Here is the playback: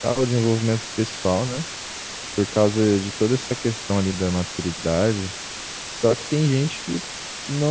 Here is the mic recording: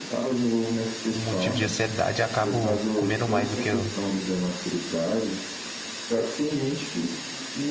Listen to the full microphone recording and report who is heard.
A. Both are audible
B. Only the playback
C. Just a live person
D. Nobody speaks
A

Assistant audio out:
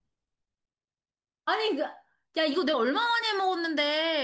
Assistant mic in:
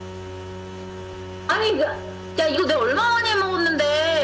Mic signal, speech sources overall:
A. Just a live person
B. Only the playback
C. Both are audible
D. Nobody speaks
B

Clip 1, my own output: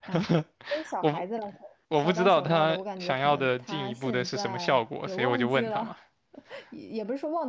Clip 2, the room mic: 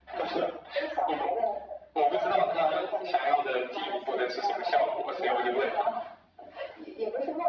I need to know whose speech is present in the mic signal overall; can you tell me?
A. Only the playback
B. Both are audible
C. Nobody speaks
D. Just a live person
A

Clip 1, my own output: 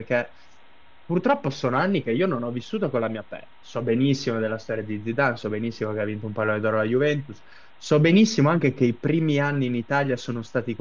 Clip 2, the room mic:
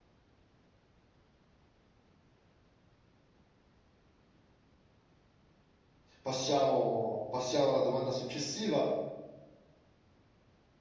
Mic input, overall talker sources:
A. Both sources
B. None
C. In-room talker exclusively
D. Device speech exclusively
C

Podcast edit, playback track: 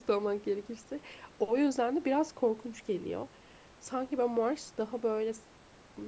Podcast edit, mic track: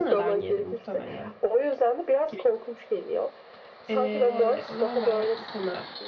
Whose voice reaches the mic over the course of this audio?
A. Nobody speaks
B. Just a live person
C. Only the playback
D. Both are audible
D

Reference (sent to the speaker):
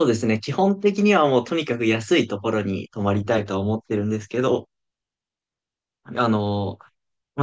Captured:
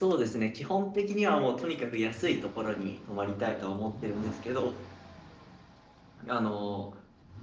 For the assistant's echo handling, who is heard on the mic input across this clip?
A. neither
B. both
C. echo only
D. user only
C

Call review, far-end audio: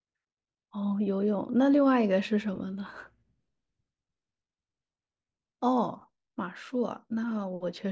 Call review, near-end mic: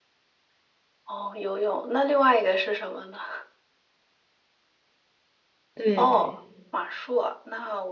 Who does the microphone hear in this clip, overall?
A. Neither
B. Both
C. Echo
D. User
B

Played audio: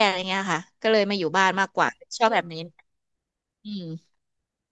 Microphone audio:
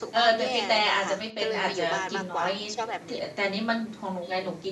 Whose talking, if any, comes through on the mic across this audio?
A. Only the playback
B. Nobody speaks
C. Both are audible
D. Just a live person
C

